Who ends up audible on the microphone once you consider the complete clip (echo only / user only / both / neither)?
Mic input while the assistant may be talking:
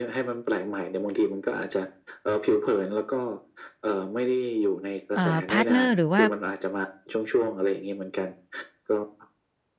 both